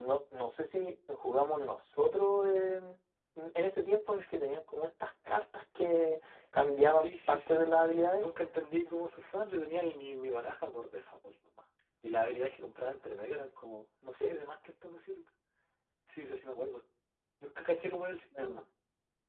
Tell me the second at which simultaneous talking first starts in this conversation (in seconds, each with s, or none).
6.9 s